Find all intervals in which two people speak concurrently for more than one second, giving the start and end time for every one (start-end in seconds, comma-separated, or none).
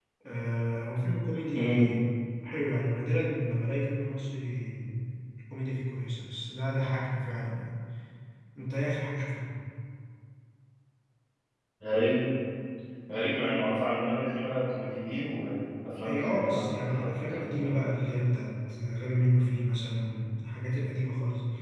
16.1-17.7